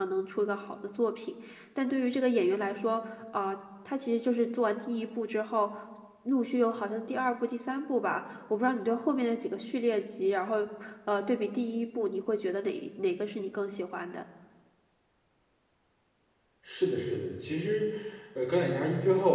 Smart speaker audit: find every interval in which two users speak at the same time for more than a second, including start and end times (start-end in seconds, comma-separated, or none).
none